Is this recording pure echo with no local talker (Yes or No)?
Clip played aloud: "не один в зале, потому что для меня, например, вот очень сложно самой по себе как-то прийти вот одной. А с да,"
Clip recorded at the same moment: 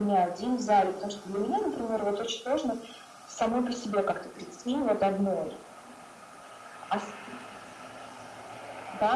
Yes